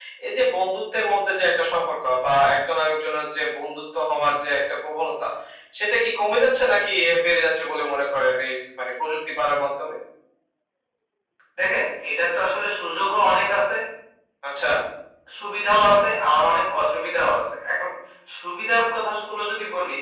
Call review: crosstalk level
none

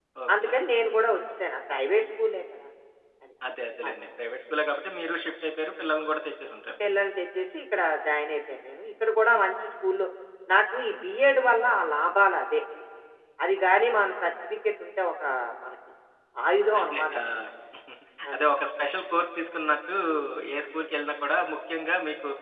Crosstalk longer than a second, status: none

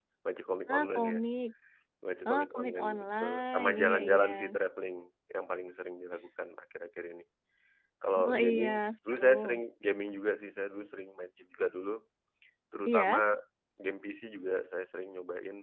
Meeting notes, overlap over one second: present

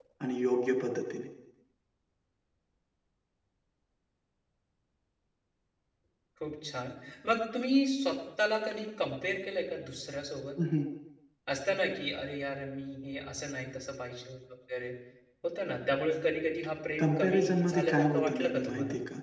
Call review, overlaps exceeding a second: present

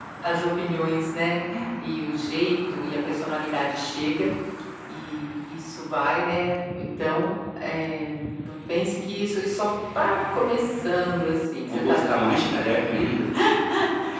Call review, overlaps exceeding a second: none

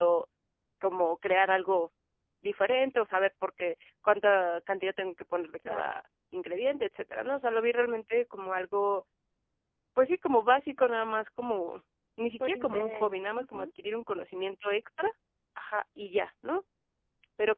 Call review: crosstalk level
present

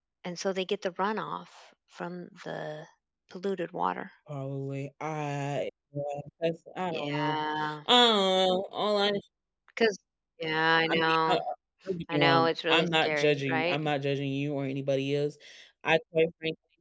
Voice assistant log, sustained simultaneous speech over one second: present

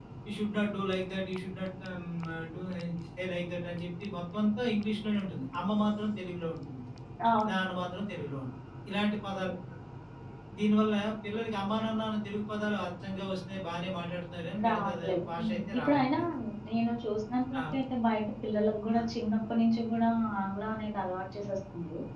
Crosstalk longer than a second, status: present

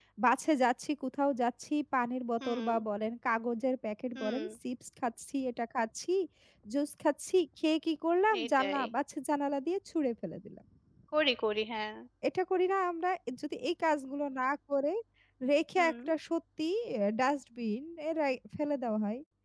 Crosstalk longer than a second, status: none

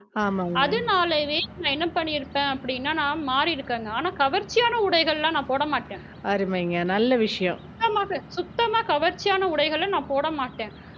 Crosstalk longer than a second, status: none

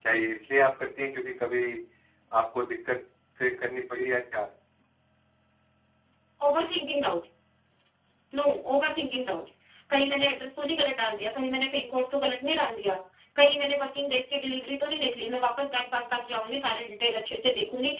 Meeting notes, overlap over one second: none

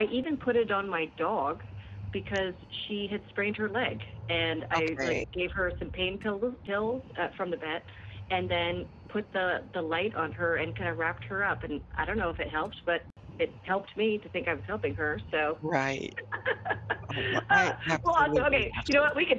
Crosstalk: present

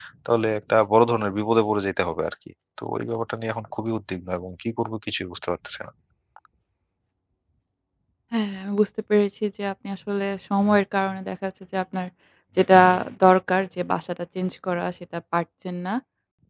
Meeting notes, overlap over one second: none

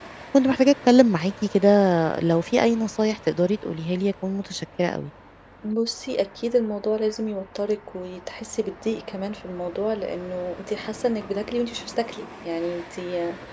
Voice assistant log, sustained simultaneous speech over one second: none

